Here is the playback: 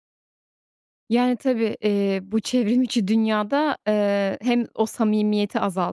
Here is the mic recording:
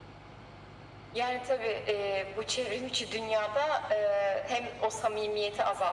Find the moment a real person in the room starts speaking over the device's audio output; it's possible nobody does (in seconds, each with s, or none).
none